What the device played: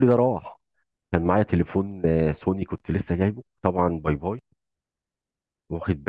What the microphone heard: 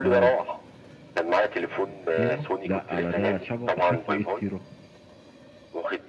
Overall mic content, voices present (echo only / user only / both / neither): both